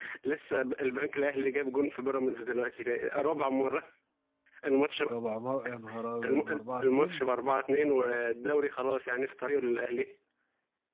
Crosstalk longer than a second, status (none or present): none